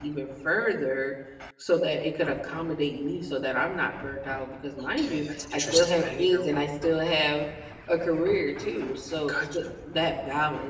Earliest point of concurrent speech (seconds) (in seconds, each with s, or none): 5.0 s